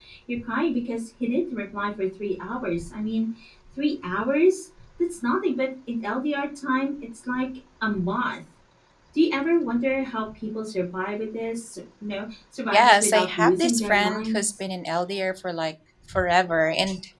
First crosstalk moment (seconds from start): 12.7 s

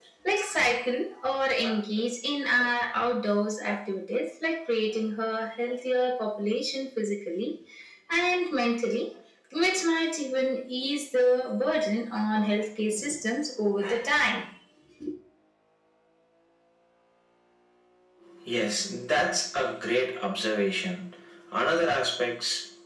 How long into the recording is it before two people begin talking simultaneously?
none

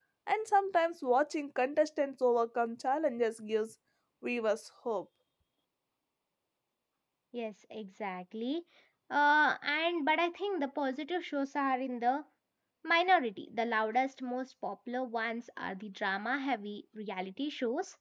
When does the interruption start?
none

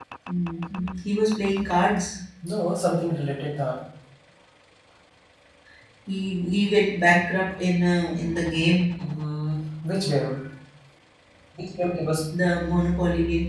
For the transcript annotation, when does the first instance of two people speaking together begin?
none

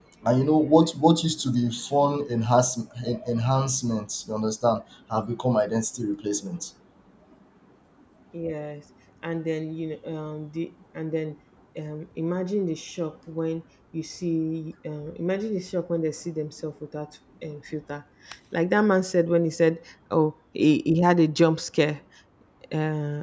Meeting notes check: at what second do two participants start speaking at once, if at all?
none

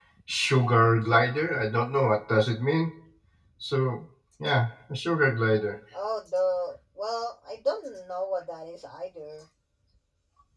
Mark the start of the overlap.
none

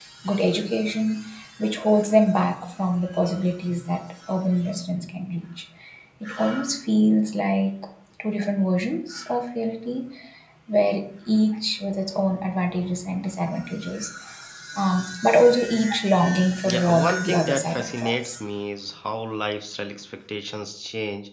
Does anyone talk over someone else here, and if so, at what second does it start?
16.6 s

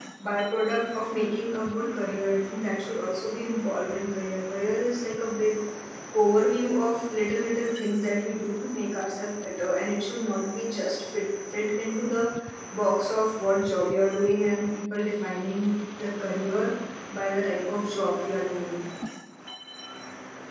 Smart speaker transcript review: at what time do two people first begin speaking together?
none

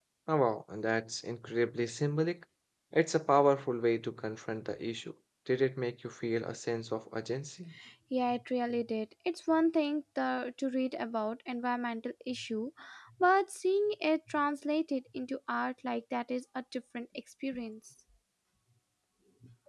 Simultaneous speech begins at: none

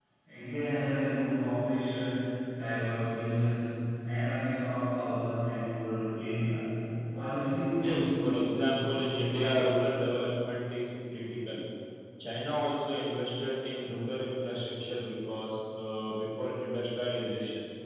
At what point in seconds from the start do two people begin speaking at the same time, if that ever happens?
7.8 s

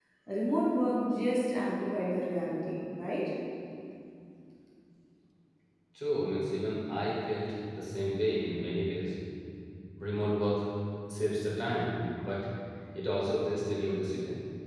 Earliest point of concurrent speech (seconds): none

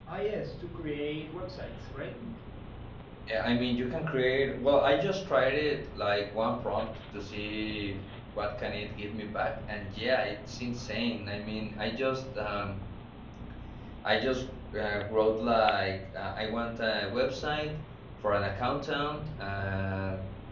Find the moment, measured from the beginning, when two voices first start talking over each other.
none

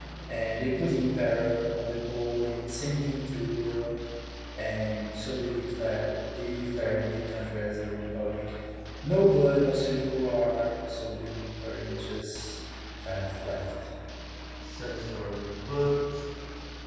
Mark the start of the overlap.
none

